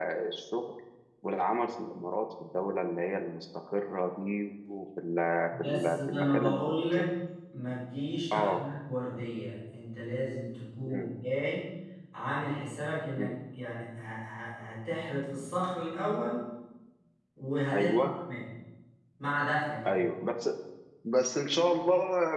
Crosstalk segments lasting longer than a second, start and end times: 5.6-7.1

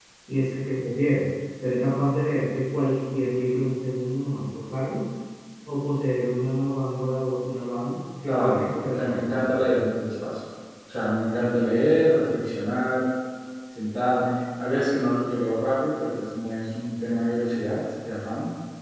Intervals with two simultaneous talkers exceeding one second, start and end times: 8.2-9.6

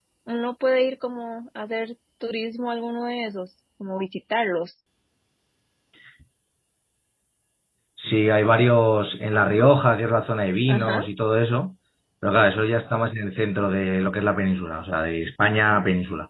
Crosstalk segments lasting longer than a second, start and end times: none

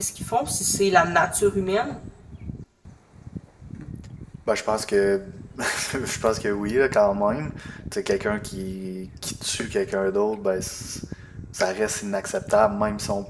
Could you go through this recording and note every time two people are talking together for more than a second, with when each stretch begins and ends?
none

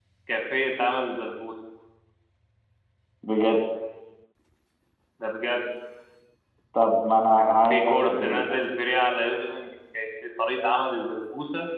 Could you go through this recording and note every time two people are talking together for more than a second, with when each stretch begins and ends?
7.4-8.6

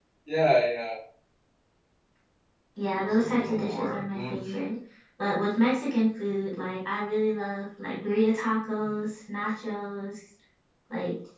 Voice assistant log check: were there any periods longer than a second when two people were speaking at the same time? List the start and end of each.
2.9-4.6

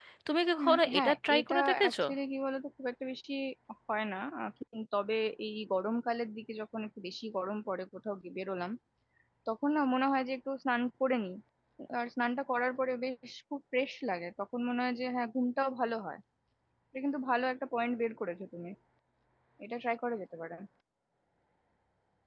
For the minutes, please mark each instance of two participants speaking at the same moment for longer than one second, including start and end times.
0.6-1.9

